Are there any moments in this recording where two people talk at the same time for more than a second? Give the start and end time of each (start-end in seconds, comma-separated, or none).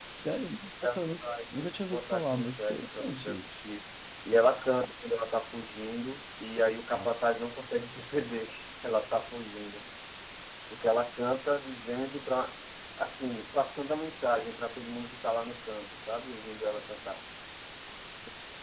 0.9-3.5